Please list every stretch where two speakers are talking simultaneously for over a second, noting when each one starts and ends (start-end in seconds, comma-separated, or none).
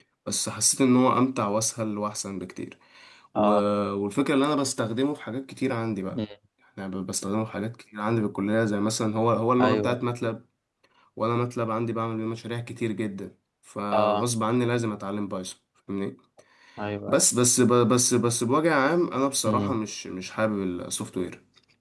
none